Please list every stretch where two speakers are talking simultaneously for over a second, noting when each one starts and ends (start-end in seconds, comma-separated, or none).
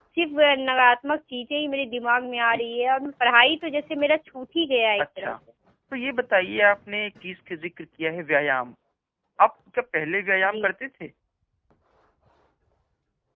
none